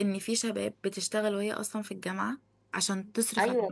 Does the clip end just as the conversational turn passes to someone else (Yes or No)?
Yes